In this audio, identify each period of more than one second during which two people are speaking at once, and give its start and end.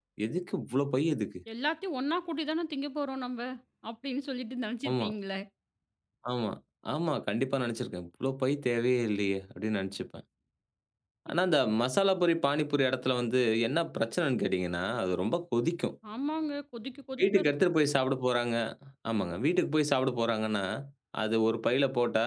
none

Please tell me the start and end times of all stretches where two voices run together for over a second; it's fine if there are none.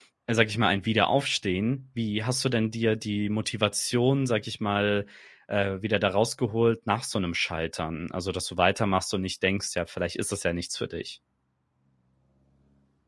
none

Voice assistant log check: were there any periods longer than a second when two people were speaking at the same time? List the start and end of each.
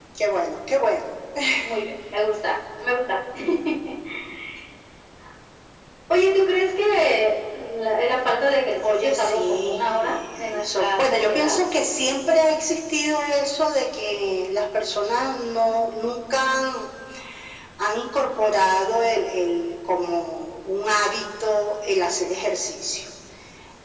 8.8-11.5

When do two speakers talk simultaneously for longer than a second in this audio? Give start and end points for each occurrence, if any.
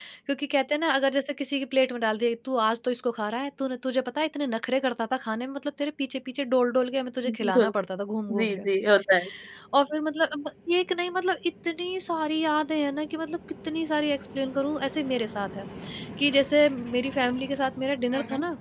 none

